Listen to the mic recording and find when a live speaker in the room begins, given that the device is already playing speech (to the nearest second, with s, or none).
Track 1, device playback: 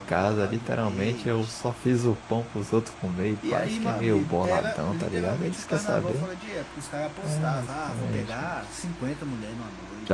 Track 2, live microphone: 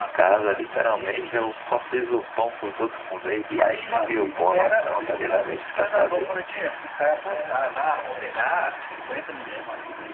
none